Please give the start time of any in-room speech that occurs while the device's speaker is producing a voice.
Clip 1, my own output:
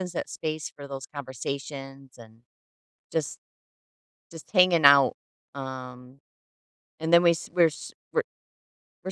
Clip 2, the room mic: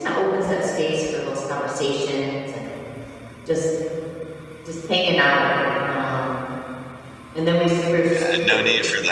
8.1 s

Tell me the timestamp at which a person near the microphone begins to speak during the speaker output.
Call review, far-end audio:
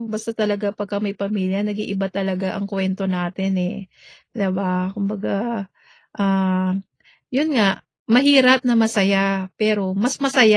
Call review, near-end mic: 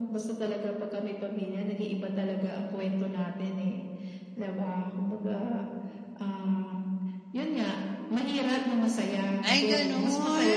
9.5 s

